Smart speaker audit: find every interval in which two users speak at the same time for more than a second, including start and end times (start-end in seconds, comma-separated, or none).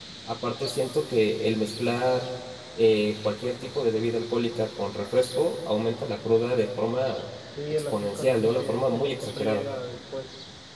7.7-9.7